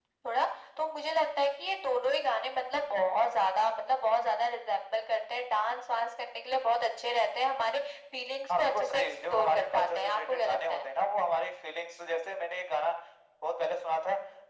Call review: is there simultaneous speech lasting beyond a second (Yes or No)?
Yes